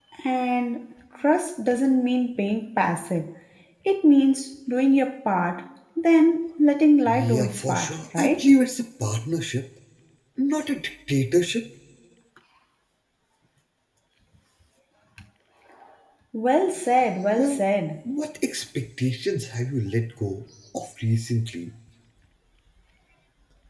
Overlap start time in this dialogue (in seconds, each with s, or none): 7.1 s